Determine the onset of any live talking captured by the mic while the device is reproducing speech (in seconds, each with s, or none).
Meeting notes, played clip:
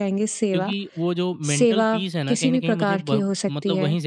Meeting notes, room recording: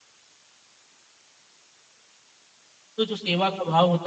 3.0 s